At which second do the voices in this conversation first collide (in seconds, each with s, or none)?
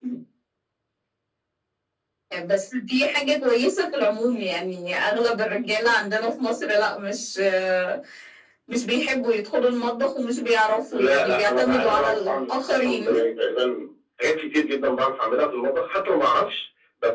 10.9 s